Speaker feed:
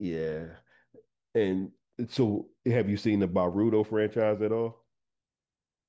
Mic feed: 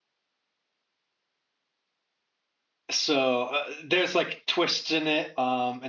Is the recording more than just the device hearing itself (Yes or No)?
Yes